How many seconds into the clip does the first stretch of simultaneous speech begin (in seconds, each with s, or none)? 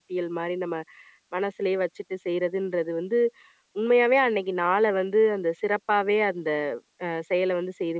none